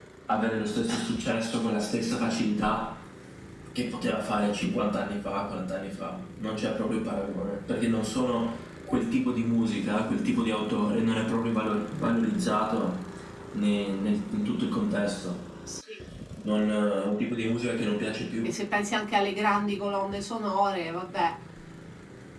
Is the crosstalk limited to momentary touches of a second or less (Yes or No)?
Yes